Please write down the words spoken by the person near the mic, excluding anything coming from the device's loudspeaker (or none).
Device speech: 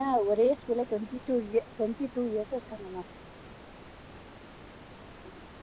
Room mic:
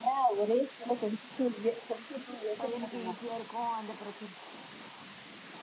பையனுக்கு ஈஸியா இருக்கு அந்த பிரச்சன